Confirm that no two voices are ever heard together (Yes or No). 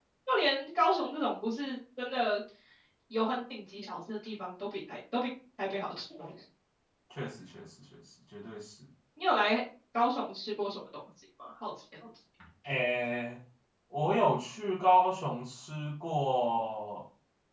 Yes